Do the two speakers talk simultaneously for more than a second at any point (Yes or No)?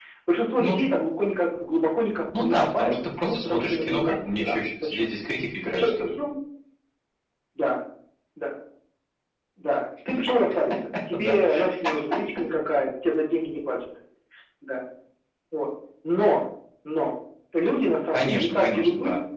Yes